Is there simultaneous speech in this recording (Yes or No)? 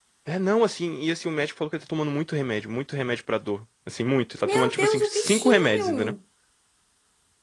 Yes